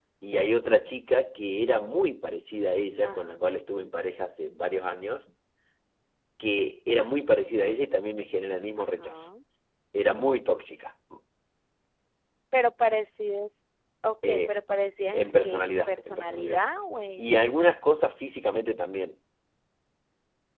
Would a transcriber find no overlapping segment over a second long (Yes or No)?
No